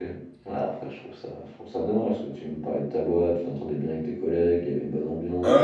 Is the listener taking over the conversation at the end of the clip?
Yes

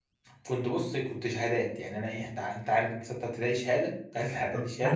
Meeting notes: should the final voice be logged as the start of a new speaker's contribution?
Yes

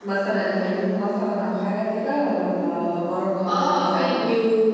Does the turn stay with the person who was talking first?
No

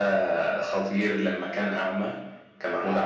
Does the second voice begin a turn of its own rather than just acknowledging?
No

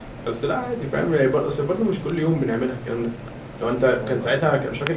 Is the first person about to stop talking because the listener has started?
No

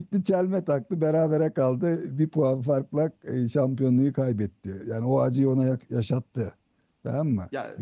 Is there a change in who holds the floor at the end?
Yes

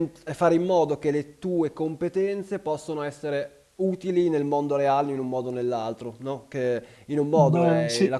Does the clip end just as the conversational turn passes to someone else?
No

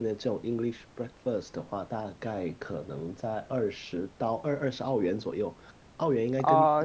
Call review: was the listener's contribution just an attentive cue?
Yes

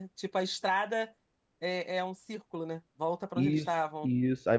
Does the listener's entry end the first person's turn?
Yes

